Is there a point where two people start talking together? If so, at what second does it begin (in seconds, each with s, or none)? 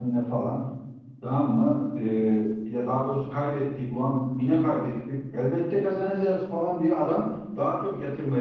none